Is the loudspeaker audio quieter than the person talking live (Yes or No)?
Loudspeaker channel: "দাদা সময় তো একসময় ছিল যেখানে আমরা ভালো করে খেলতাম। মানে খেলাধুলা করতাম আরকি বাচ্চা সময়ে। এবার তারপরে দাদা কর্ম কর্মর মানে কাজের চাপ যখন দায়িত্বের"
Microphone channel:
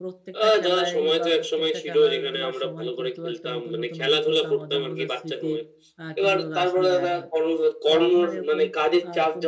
No